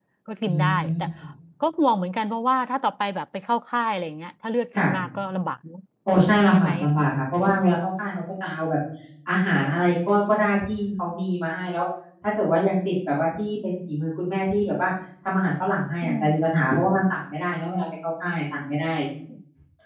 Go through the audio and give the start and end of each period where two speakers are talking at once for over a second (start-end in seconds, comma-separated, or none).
none